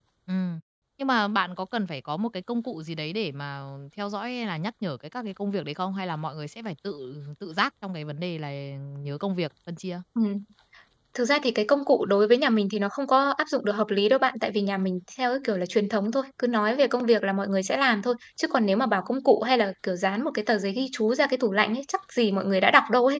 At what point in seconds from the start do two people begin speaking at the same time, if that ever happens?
none

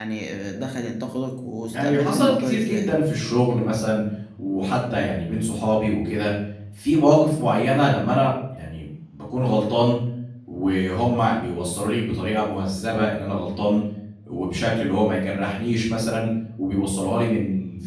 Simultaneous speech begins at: 2 s

